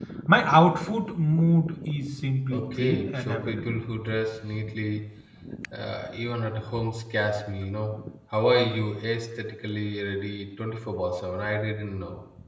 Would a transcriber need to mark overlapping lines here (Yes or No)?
Yes